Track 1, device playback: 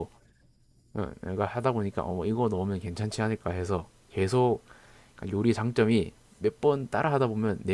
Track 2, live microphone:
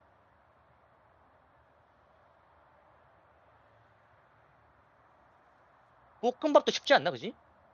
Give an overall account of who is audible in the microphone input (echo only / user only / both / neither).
user only